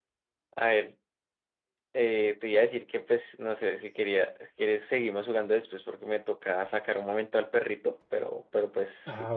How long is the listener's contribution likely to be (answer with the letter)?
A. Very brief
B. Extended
B